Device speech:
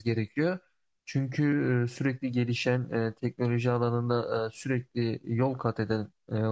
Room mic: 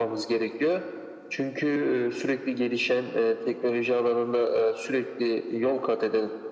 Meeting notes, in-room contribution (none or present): none